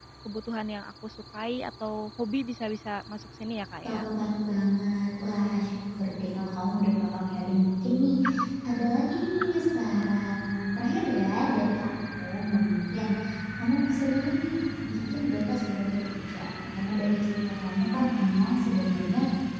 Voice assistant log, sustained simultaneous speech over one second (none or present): none